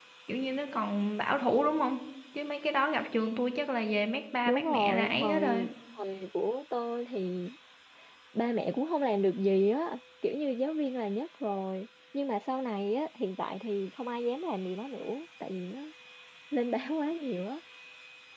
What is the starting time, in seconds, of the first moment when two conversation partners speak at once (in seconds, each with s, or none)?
4.4 s